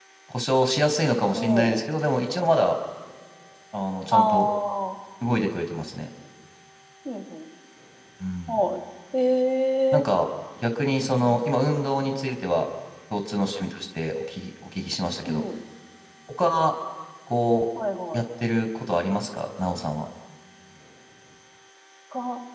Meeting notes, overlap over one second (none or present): none